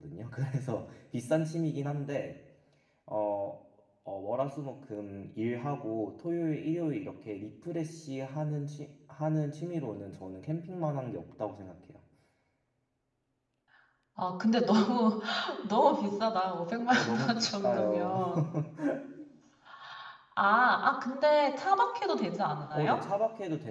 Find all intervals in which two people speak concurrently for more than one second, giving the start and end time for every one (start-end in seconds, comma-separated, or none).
16.9-18.1